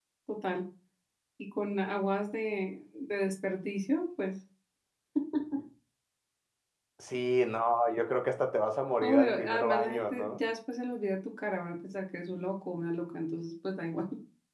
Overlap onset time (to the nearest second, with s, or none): 9 s